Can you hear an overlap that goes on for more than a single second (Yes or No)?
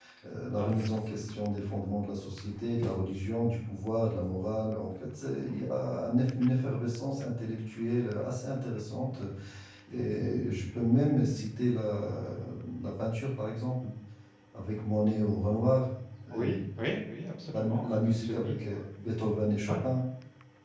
Yes